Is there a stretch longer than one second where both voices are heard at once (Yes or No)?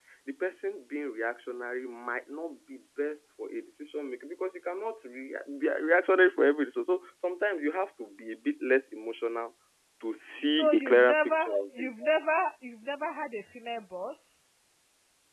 Yes